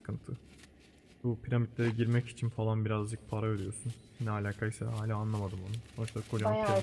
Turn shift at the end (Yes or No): Yes